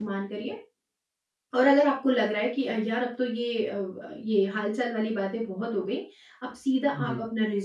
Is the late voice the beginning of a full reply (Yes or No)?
No